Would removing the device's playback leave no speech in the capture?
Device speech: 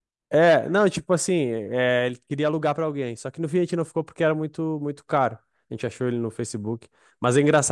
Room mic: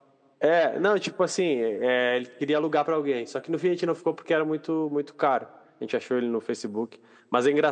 Yes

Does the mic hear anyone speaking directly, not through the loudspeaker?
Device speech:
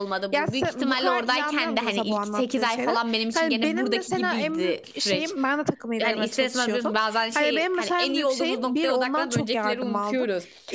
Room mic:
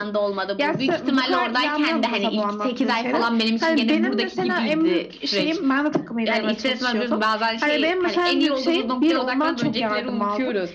No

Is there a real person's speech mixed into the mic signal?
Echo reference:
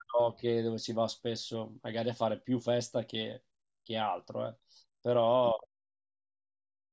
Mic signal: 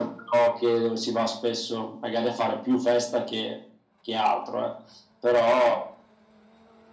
No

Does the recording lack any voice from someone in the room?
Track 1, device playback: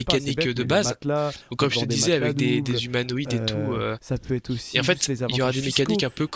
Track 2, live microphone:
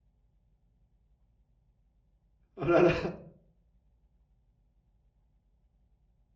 No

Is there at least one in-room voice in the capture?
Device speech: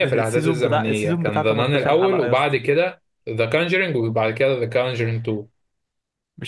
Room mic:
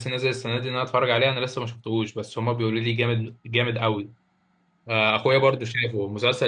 Yes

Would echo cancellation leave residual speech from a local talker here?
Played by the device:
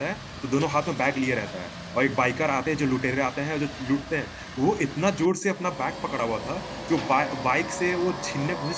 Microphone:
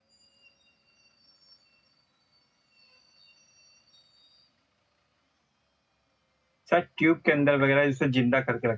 Yes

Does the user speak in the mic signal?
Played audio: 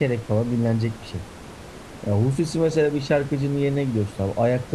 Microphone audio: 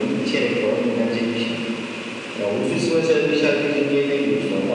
No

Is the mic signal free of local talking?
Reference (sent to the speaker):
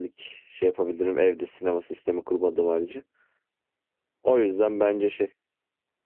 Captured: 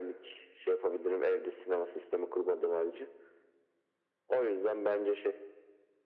Yes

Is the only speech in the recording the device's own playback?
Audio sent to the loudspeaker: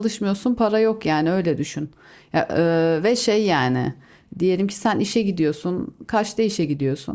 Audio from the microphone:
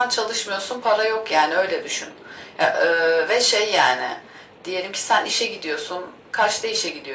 Yes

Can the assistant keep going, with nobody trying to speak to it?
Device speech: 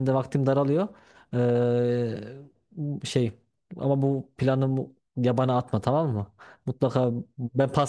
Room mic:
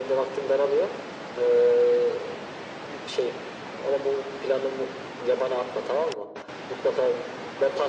Yes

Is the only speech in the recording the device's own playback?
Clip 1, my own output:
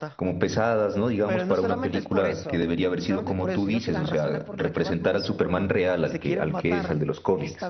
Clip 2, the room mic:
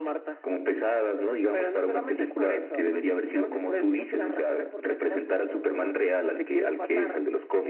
Yes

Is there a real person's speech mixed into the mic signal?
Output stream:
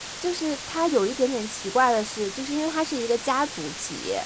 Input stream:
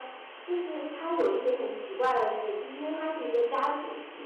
No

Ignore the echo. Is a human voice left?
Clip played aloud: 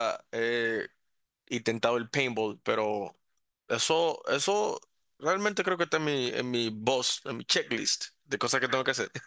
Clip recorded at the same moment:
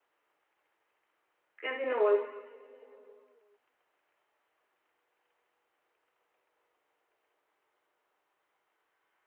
Yes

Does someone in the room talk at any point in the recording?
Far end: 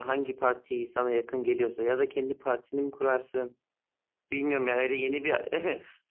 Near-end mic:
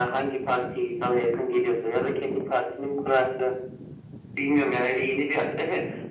No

